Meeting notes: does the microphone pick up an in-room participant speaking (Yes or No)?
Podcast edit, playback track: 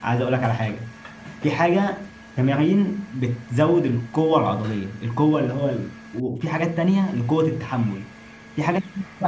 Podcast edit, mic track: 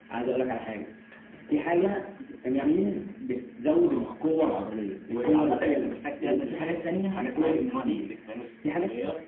Yes